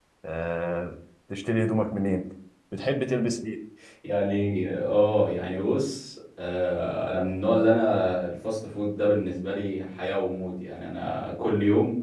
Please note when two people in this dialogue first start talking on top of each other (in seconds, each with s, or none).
none